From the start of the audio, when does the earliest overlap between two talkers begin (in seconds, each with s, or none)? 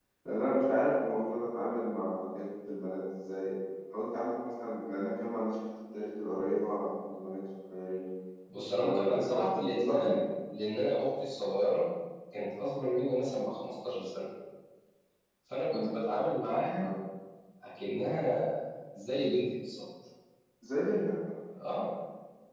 8.7 s